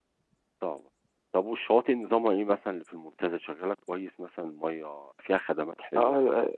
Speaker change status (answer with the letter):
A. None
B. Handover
B